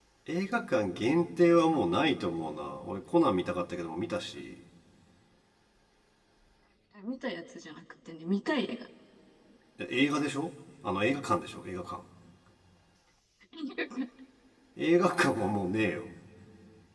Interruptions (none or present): none